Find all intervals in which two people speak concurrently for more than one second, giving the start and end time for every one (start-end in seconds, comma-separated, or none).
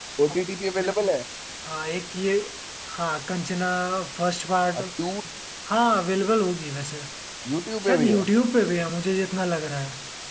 none